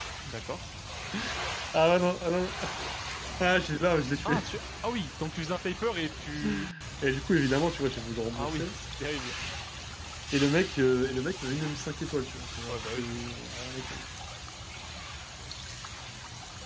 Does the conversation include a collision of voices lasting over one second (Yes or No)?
No